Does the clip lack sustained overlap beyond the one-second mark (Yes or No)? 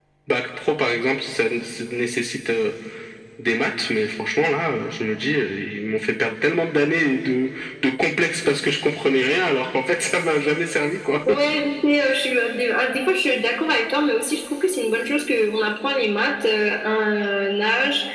Yes